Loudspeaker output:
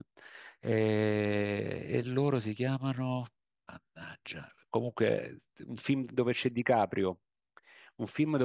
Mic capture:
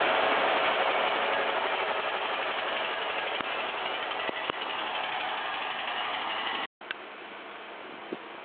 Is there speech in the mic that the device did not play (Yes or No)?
No